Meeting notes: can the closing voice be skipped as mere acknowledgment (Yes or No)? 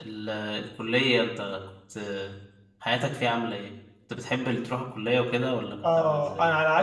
No